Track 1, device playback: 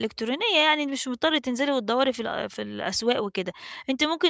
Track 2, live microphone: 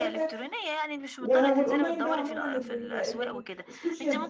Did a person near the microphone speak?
Yes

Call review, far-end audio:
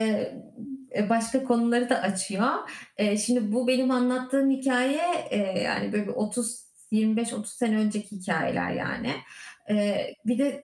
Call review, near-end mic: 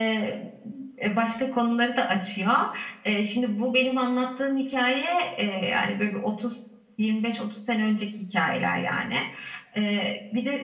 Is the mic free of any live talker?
Yes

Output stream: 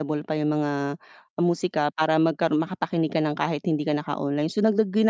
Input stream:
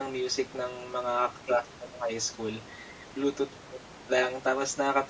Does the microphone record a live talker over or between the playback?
Yes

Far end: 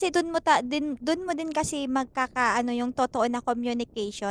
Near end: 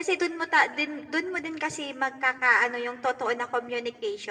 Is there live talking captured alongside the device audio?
No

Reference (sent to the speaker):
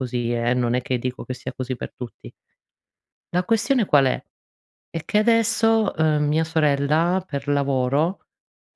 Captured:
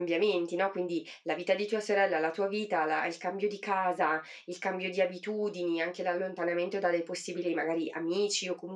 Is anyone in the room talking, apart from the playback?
Yes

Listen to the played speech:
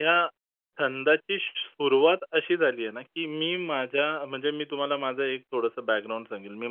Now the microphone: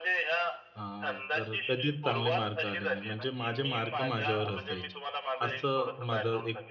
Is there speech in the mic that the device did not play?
Yes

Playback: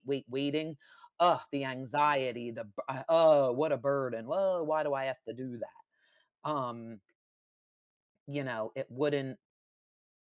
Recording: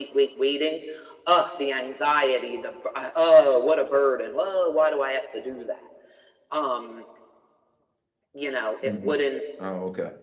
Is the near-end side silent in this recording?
No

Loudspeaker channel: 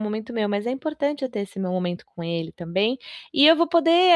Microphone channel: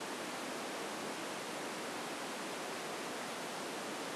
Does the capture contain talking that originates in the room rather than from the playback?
No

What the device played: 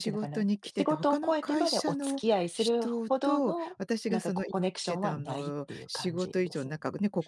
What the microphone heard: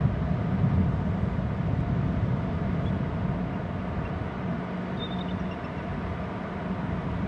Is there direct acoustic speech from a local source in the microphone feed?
No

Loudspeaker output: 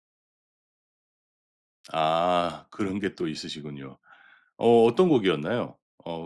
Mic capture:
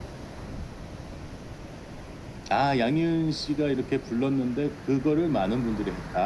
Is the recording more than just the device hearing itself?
Yes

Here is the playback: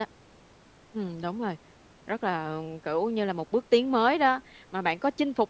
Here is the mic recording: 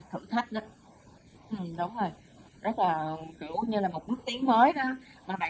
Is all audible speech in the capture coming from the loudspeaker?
Yes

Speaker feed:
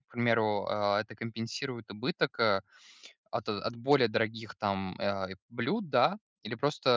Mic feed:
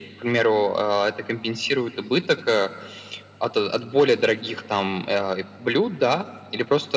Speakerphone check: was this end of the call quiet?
Yes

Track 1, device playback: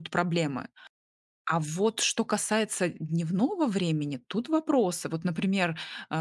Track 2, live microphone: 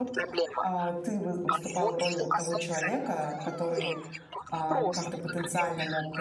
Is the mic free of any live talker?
No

